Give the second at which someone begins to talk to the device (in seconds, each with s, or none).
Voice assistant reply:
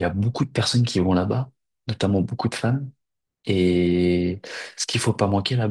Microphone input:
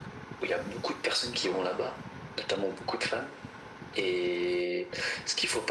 none